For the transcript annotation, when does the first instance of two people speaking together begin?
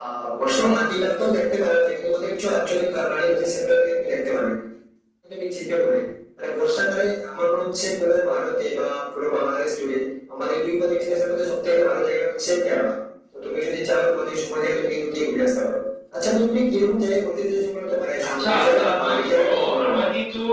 18.2 s

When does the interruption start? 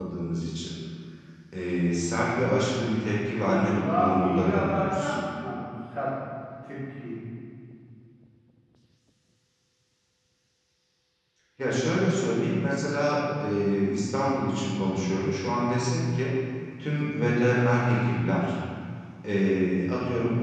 3.4 s

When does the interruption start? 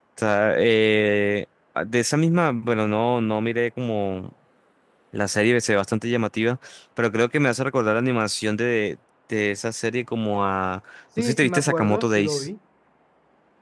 11.2 s

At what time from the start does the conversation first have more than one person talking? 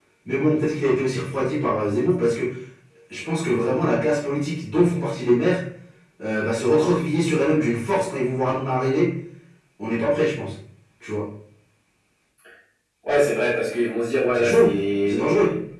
14.1 s

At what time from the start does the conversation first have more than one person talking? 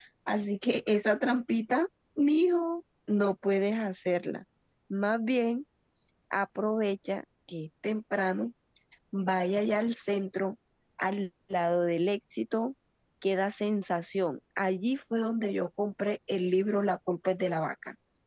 none

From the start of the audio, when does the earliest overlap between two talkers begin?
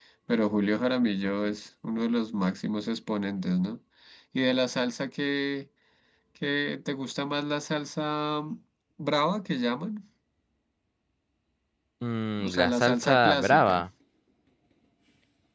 12.4 s

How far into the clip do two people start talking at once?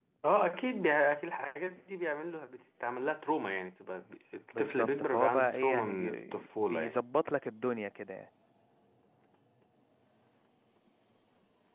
4.5 s

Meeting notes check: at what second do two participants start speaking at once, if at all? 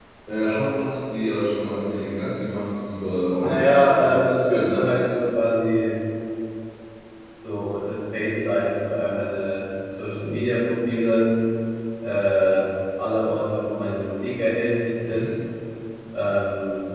3.4 s

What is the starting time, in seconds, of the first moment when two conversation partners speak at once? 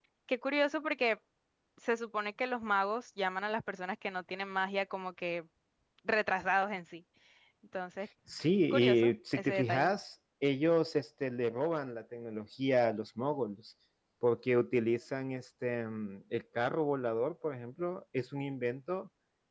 8.7 s

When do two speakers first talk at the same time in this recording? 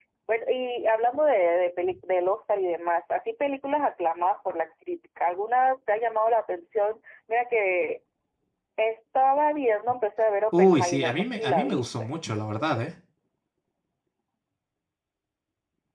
10.5 s

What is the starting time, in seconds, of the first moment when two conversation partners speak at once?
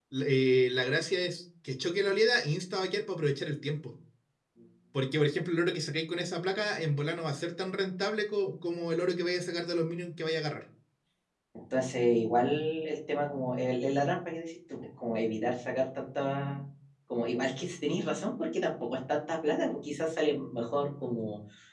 none

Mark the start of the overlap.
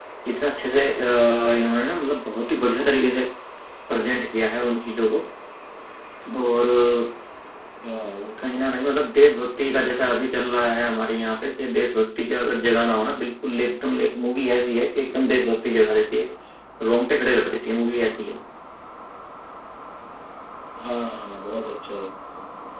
none

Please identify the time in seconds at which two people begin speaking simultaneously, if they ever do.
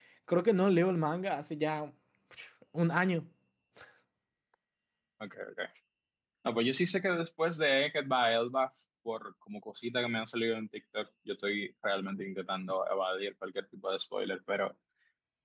none

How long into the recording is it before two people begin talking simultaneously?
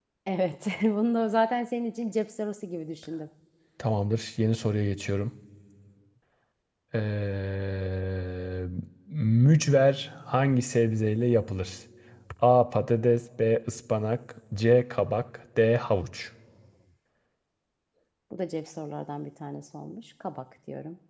none

